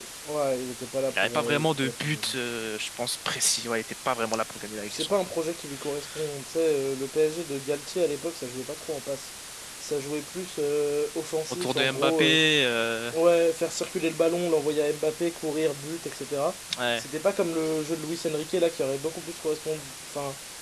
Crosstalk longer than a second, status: present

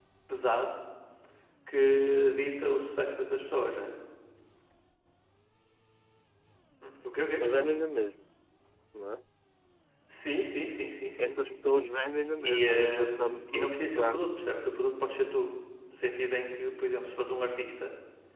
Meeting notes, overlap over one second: present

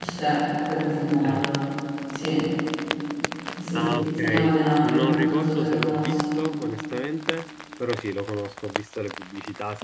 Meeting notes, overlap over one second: present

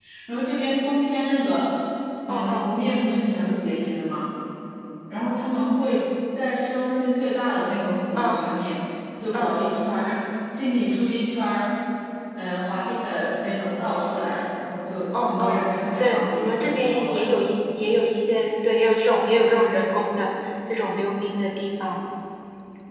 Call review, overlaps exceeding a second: present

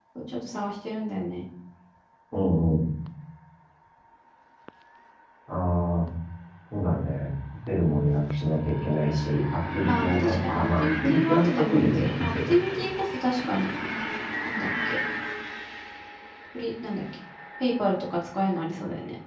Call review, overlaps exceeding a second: present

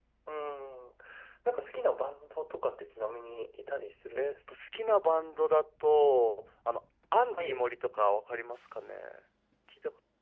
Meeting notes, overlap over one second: none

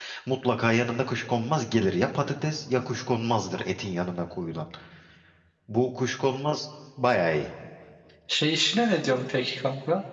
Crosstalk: none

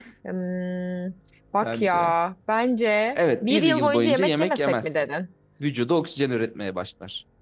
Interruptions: present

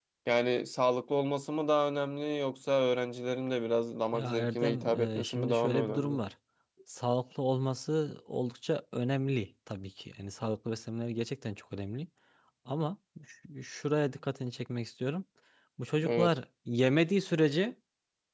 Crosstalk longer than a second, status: present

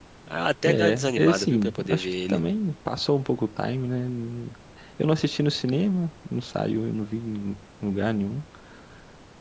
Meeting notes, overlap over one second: present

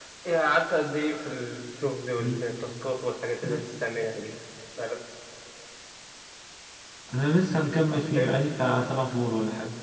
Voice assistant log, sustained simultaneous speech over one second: none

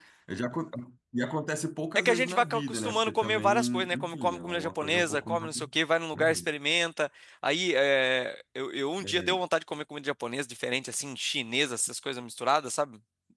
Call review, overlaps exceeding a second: present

